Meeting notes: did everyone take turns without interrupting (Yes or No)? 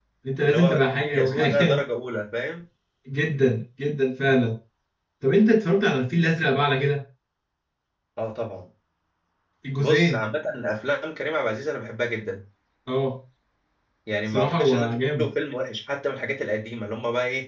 No